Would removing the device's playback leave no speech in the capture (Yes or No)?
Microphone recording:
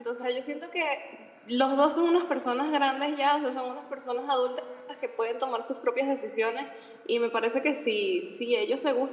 No